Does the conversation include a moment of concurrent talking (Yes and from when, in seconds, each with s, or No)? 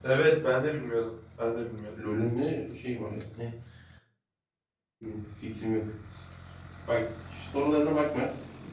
No